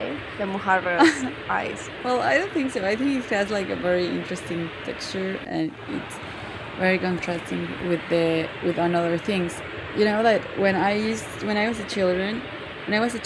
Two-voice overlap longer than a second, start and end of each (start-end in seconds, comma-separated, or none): none